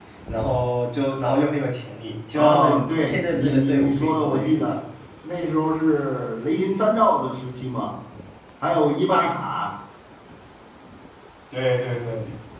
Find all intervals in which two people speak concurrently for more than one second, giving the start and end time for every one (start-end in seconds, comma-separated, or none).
2.4-4.8